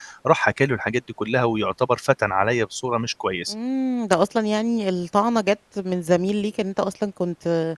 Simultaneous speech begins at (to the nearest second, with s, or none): none